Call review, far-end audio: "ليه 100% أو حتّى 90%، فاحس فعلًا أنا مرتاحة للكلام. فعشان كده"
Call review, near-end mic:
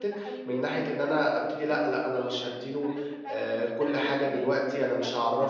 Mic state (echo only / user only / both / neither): both